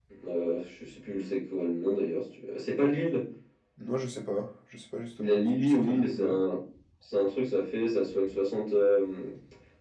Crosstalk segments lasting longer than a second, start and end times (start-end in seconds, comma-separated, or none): 5.2-6.4